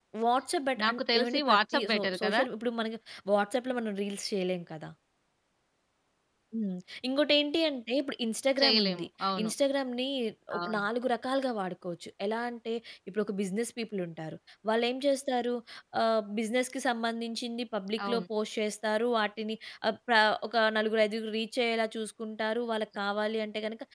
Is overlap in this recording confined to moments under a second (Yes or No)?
No